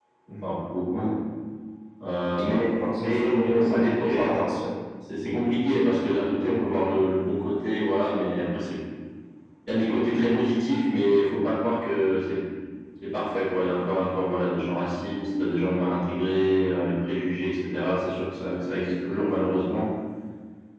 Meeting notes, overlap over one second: present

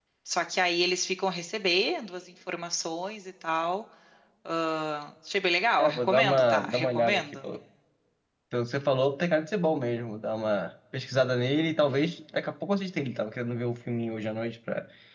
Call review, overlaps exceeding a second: present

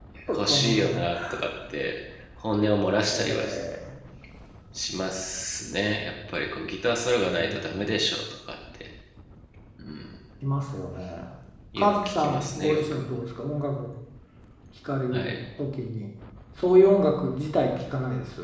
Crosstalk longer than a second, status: present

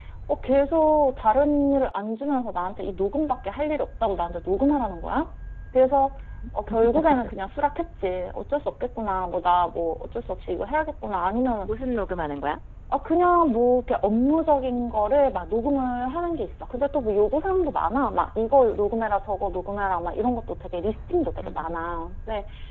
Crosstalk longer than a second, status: none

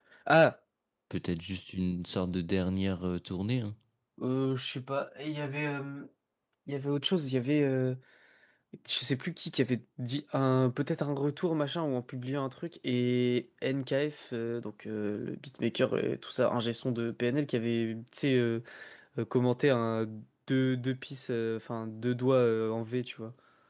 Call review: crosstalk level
none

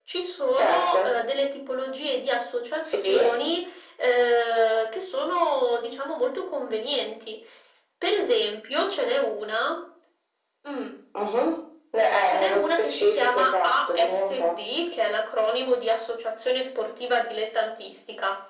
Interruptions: present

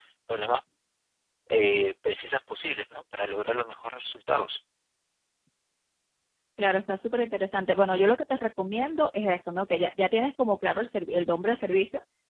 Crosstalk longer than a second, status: none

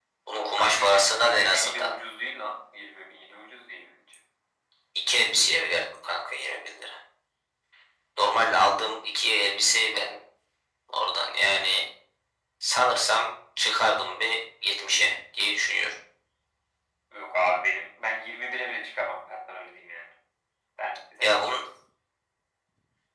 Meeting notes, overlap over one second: present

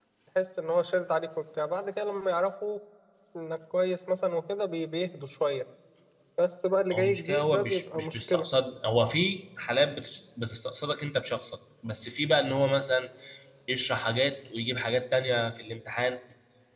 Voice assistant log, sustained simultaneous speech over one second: present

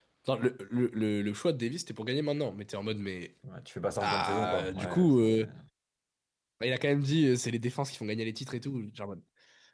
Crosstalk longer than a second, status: present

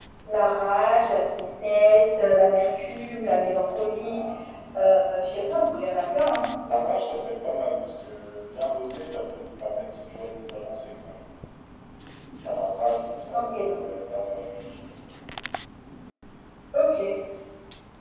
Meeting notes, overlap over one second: none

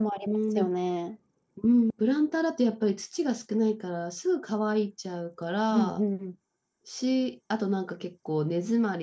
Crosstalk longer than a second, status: none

